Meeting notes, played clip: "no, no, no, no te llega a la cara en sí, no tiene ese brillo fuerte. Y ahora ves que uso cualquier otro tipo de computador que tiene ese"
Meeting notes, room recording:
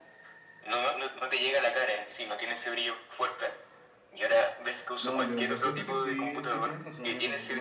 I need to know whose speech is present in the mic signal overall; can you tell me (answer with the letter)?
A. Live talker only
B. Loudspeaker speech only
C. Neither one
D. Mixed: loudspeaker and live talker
D